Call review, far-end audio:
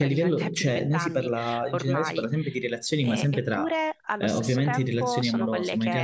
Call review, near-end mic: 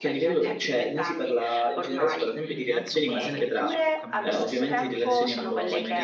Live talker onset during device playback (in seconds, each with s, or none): 2.4 s